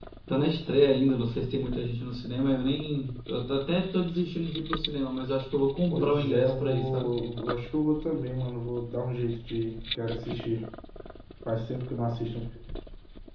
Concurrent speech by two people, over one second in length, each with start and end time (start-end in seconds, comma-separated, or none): 5.9-7.1